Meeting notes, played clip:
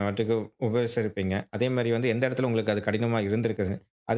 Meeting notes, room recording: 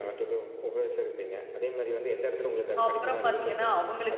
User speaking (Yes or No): Yes